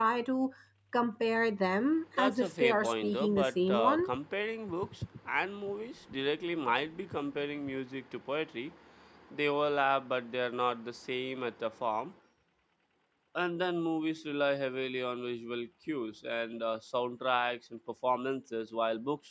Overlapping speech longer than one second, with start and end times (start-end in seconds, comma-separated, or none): 2.2-4.0